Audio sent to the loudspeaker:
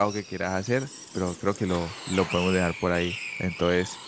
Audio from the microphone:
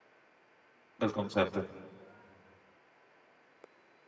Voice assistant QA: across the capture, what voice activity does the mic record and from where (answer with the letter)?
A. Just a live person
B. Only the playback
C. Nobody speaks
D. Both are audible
A